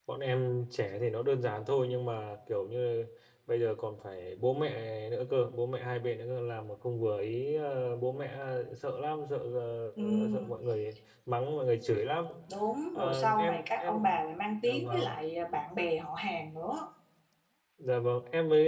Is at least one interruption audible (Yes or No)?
Yes